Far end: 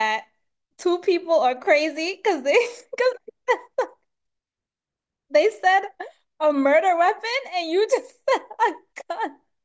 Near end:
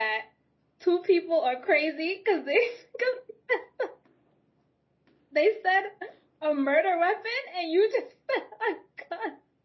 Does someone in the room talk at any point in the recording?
No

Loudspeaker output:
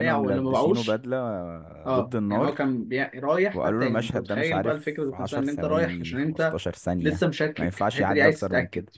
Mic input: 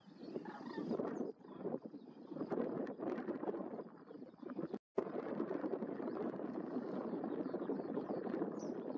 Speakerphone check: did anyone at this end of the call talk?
No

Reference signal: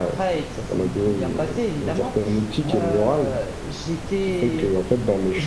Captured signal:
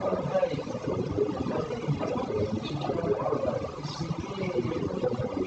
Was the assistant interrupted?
No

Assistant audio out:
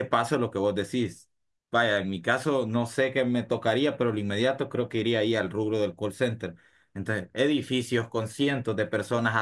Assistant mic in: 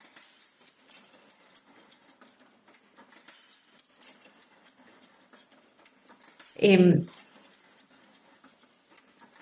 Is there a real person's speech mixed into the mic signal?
Yes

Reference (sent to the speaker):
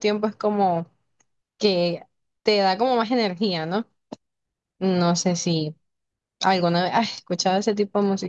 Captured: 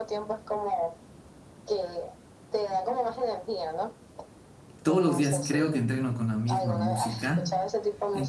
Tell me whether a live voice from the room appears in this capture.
Yes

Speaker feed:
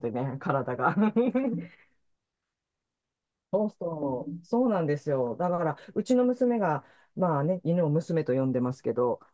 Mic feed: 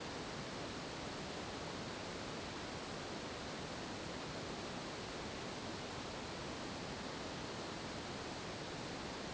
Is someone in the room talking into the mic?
No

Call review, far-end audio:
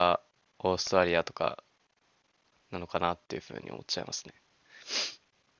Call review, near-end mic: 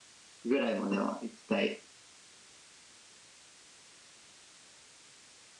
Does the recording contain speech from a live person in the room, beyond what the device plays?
Yes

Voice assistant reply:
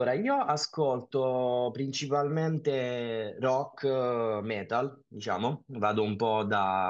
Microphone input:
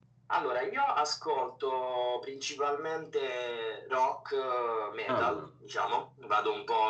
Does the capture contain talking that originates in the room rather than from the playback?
Yes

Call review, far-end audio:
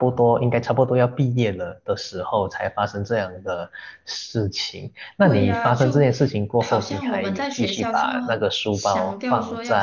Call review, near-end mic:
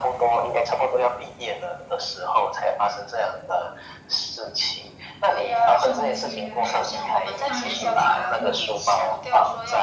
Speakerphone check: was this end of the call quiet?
No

